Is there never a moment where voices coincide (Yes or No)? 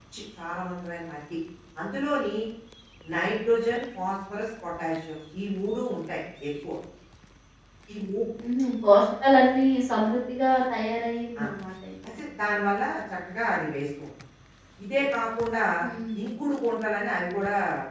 Yes